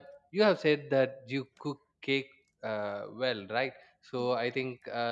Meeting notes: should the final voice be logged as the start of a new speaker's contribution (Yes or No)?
No